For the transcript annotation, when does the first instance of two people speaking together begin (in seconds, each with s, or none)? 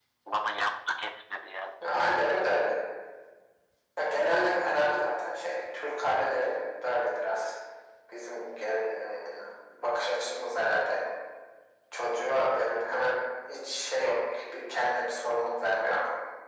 none